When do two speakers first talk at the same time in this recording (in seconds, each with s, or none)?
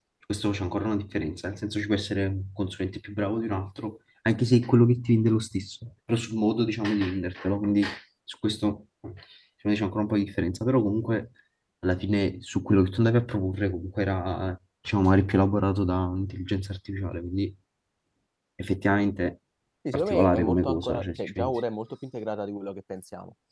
19.9 s